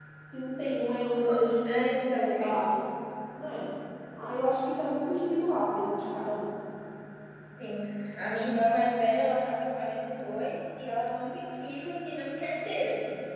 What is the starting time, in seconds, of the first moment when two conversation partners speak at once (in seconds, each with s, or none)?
1.2 s